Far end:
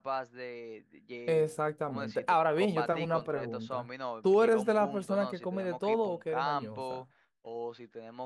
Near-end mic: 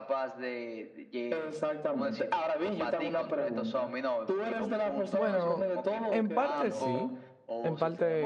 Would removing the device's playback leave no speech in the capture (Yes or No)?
No